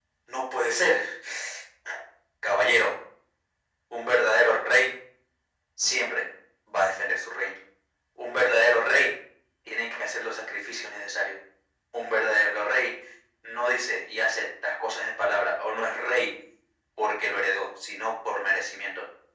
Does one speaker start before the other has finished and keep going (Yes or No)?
No